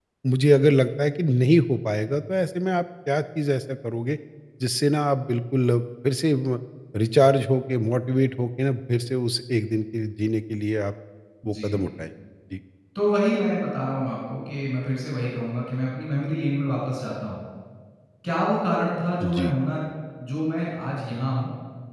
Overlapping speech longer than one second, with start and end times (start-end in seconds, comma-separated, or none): none